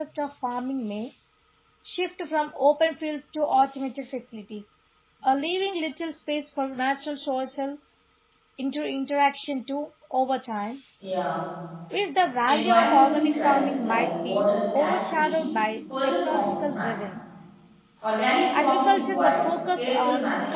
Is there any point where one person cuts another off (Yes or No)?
Yes